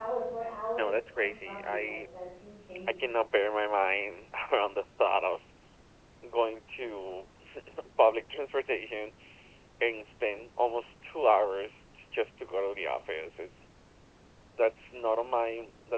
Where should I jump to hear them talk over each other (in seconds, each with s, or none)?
0.8 s